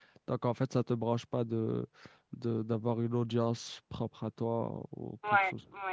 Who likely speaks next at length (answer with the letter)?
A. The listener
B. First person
A